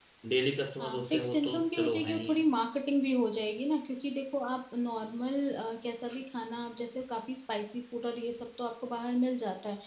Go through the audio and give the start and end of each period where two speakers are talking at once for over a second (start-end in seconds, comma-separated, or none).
0.8-2.5